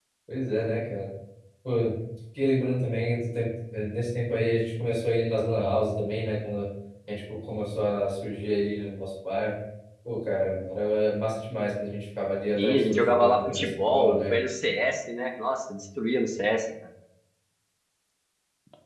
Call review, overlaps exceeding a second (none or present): present